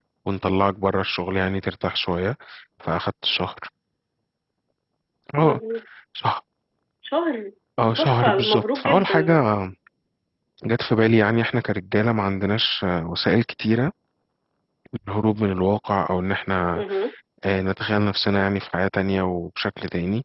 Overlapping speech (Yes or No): Yes